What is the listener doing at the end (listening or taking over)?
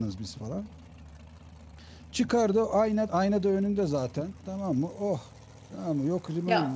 taking over